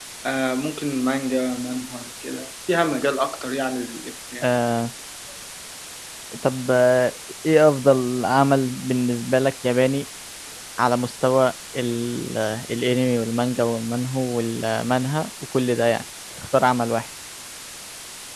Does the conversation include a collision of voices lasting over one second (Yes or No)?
No